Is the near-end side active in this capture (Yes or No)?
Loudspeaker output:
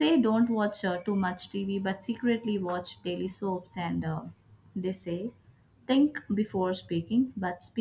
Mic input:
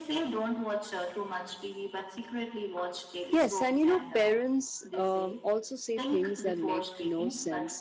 Yes